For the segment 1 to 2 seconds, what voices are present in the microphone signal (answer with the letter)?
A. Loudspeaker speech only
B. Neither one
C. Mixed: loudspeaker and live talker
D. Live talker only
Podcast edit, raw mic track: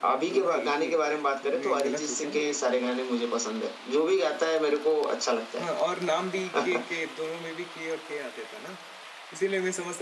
C